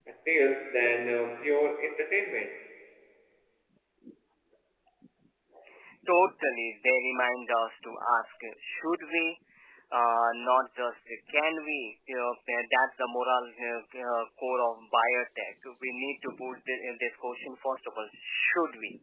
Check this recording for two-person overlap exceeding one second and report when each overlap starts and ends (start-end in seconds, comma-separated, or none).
none